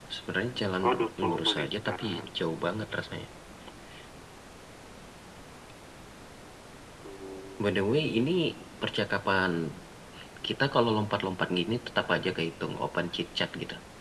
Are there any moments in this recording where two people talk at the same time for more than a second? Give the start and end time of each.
0.8-2.2

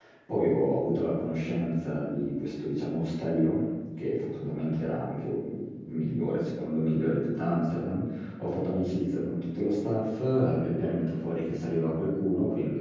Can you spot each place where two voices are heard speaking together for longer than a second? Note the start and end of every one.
none

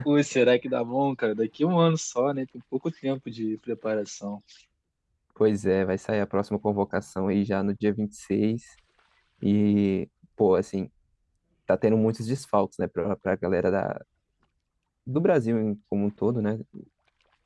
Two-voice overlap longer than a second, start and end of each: none

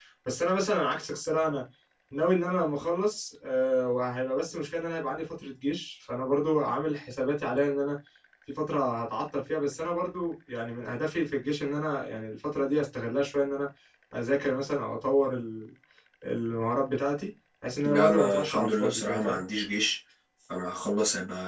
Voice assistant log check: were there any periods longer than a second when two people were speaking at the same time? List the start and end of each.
17.8-19.4

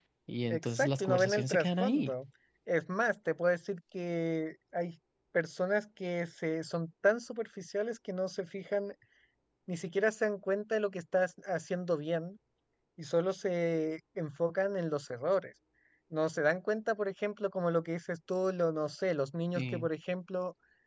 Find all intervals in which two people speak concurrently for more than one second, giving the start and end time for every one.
0.5-2.1

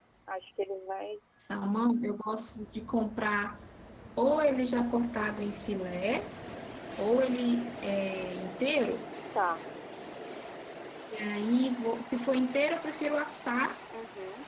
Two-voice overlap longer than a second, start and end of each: none

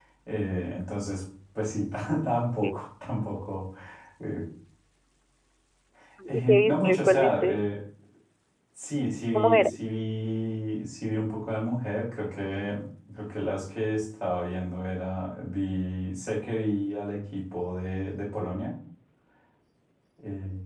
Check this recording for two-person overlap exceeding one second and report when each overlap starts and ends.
6.3-7.6

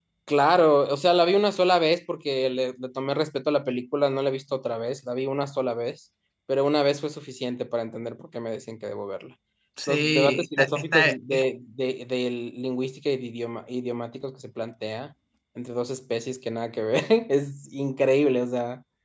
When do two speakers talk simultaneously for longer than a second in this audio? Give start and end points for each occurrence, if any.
9.9-11.4

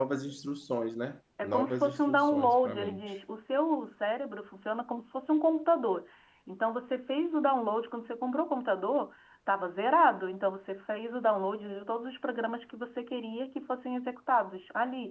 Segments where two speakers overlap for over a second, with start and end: 1.4-3.0

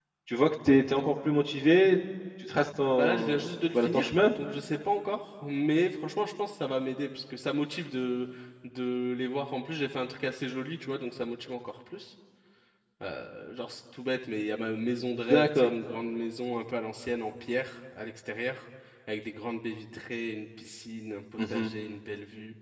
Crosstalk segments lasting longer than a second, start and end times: 2.9-4.2

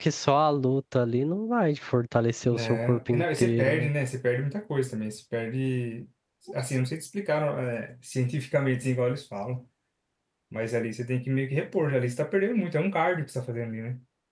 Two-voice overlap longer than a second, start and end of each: 2.5-3.9

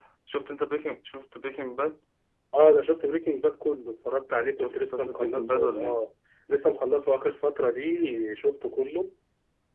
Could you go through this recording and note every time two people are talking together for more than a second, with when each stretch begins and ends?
4.6-6.0

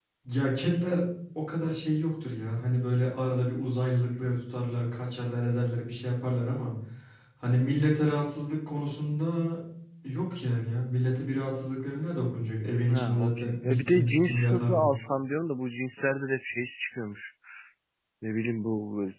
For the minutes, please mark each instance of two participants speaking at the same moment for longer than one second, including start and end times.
12.9-14.8

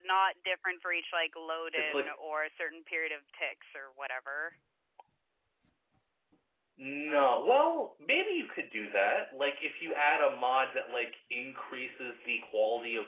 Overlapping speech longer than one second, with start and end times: none

